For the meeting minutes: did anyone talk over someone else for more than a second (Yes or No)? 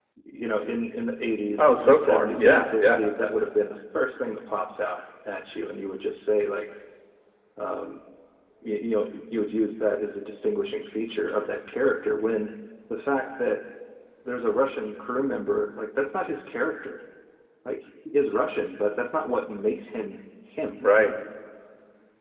Yes